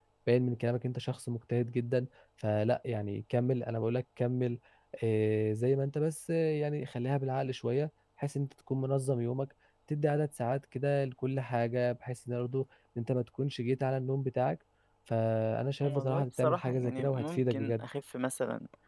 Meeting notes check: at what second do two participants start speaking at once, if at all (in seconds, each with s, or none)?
15.8 s